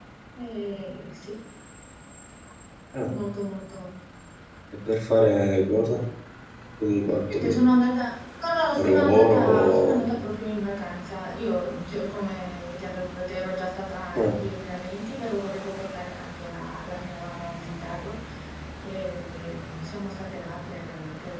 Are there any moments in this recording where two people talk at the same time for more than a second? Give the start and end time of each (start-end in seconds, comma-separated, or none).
8.8-10.0